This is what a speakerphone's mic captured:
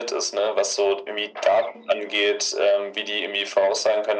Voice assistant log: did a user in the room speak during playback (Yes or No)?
No